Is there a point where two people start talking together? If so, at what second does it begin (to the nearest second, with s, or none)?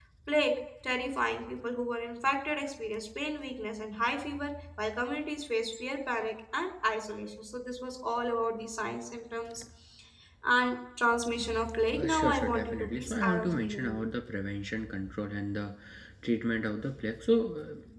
12 s